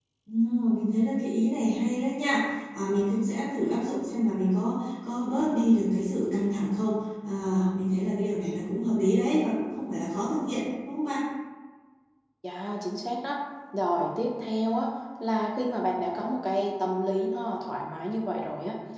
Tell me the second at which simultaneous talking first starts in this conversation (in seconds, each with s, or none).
none